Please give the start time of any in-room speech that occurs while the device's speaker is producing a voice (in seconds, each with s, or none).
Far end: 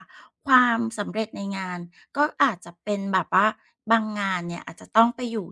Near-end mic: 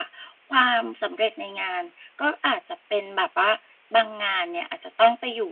none